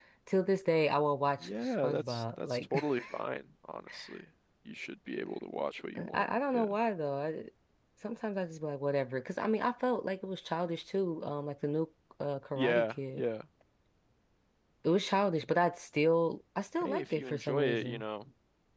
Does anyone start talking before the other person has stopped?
Yes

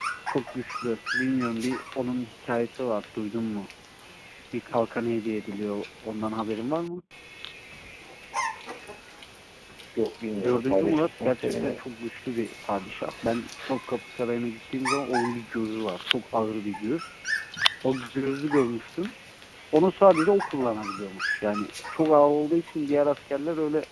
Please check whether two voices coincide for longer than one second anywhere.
Yes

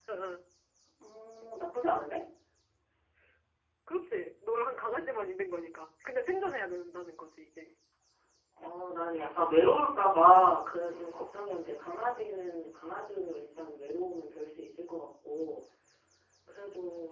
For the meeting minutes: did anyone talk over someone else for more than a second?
No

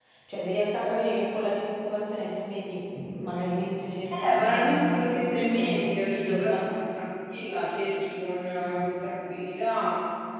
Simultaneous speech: Yes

